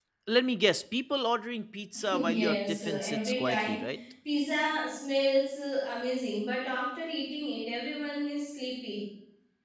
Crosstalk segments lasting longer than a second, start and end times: 2.1-3.8

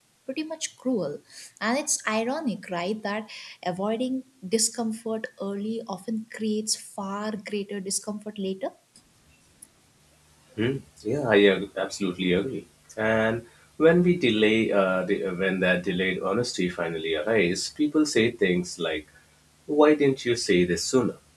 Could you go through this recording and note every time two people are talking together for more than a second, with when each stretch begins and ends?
none

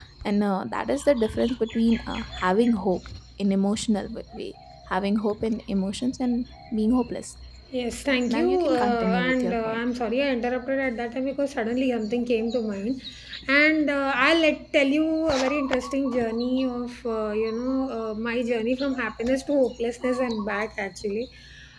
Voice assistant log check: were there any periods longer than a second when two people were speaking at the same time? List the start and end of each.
8.1-9.8

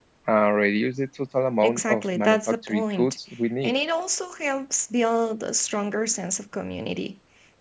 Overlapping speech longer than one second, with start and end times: 1.6-3.2

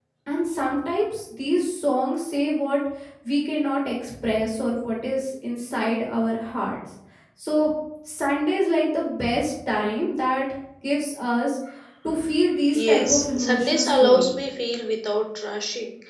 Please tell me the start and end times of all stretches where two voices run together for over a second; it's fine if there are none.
12.7-14.3

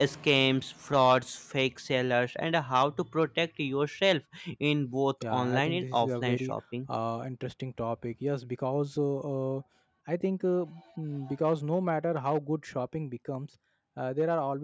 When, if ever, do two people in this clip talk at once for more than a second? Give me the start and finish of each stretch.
5.2-6.5

